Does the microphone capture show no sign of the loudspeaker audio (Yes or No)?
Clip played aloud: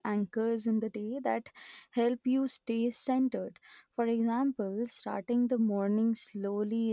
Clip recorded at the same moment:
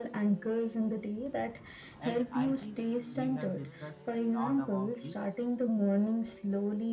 No